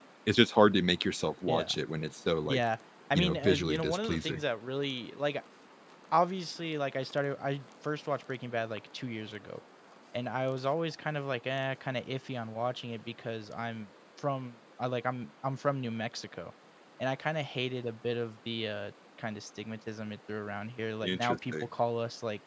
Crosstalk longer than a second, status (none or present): present